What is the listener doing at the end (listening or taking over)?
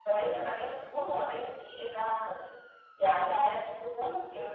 listening